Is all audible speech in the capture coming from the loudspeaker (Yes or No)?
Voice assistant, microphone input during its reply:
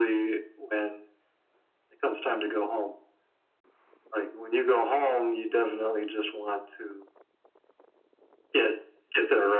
Yes